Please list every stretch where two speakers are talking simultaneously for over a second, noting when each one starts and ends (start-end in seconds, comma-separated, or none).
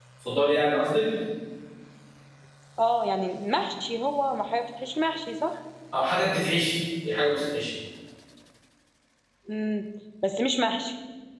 none